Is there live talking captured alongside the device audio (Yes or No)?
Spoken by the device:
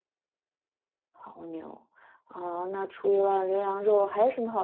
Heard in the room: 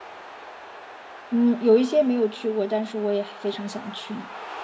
Yes